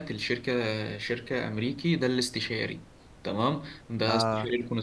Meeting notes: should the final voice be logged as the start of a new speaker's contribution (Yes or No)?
No